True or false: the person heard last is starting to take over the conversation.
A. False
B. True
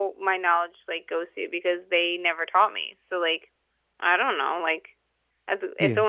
A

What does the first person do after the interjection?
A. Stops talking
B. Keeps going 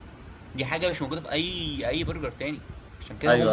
A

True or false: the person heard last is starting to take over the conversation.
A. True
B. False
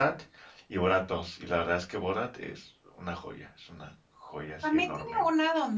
A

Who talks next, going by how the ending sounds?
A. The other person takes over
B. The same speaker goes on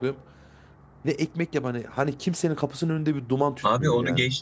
A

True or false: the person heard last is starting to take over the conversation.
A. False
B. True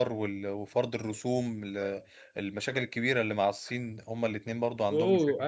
B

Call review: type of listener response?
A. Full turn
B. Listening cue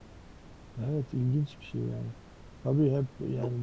B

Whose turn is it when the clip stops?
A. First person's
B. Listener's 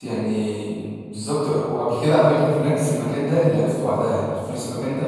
A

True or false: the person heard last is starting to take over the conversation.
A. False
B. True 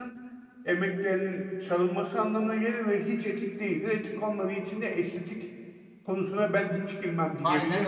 B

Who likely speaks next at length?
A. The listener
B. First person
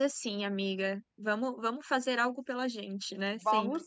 A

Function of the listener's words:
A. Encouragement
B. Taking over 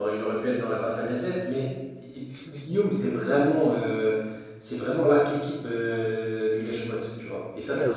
B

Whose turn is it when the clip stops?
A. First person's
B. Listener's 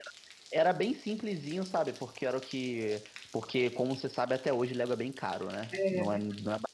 A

